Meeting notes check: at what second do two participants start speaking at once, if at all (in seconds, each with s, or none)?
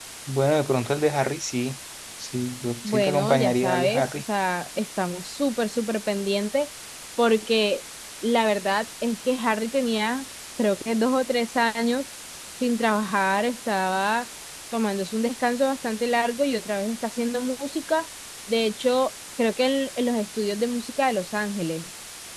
2.8 s